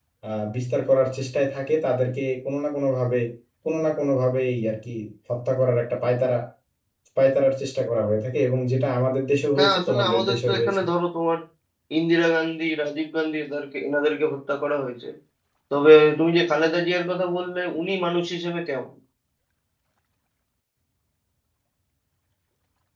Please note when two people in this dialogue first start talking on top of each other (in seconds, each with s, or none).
9.6 s